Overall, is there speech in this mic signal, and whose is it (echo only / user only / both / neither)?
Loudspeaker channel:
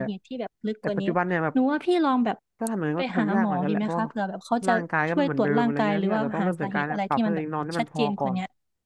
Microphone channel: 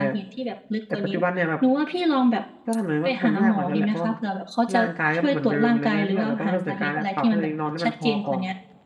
echo only